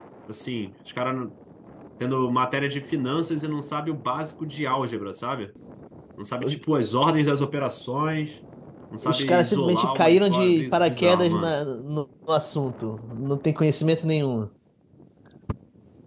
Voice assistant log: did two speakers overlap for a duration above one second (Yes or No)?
Yes